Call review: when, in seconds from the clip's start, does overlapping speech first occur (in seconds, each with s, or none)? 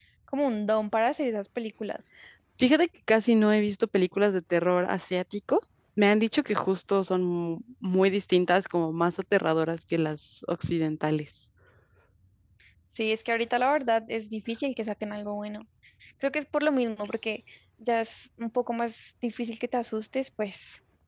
none